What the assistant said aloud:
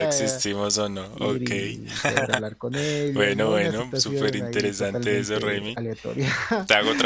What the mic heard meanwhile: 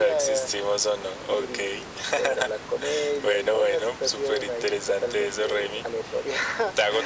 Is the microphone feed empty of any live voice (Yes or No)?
Yes